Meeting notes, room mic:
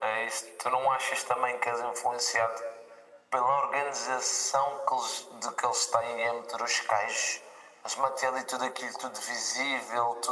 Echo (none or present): present